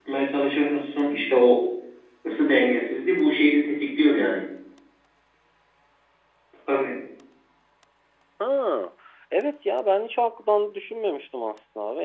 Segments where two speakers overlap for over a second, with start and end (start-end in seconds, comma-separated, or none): none